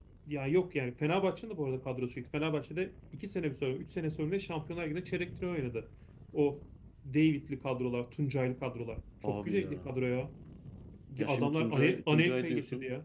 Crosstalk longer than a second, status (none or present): present